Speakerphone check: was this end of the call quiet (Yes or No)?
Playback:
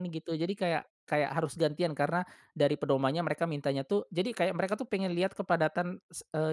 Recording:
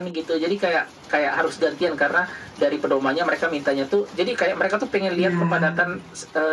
No